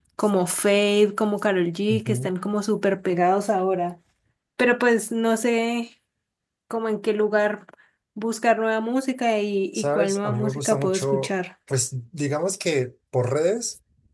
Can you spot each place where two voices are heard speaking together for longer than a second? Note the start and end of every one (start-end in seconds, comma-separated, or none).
9.7-11.3